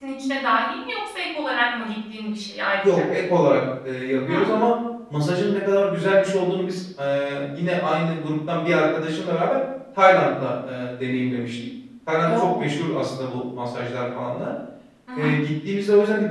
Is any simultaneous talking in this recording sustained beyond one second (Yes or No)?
No